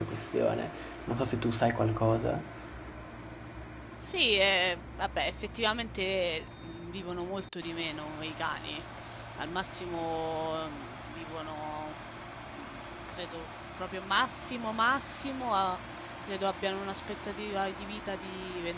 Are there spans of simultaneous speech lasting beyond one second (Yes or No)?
No